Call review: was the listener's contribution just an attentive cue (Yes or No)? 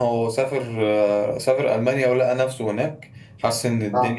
Yes